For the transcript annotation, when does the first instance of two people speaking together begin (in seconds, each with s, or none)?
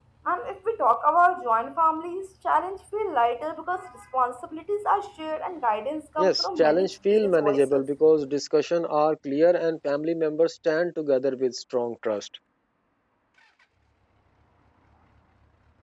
6.2 s